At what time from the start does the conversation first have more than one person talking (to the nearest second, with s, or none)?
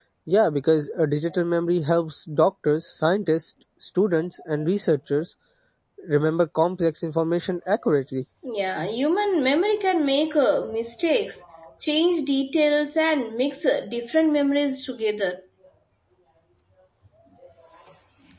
none